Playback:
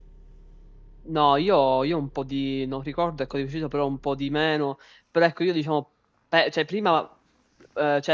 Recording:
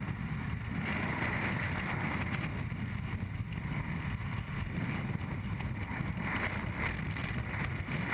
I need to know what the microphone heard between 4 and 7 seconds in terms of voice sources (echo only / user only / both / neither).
neither